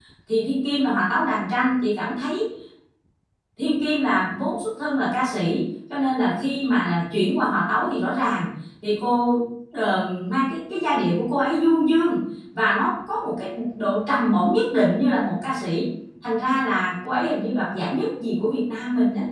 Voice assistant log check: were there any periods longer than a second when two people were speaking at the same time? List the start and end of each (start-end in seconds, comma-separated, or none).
none